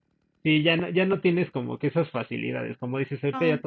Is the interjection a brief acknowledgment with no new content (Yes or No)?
Yes